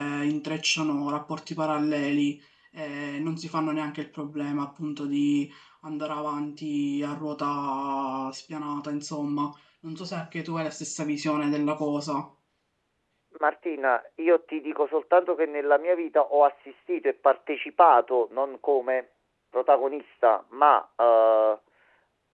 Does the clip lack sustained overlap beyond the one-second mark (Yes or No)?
Yes